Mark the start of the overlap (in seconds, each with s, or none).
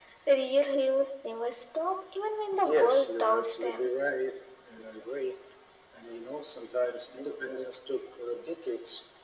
2.5 s